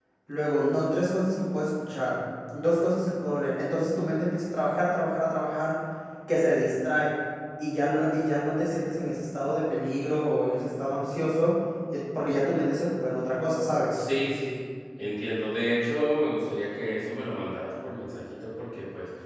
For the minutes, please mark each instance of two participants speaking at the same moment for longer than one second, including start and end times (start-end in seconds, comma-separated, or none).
none